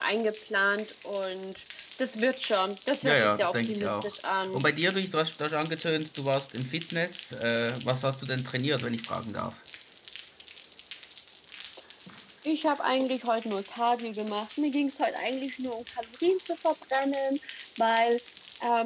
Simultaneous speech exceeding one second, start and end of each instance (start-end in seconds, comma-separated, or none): 3.0-4.6